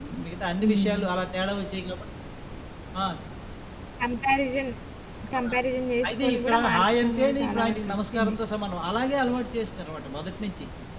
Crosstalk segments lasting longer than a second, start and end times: 6.1-8.3

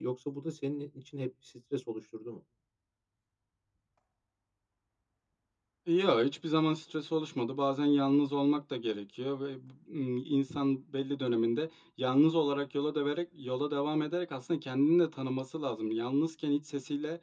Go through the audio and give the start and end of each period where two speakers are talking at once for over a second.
none

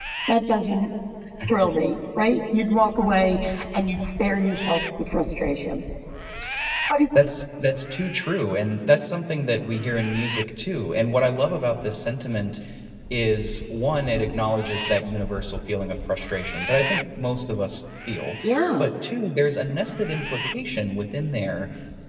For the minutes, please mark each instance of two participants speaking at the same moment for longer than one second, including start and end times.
none

